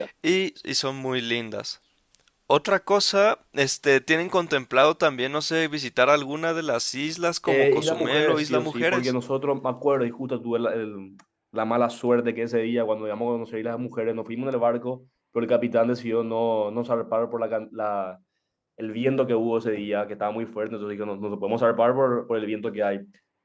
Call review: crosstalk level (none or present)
present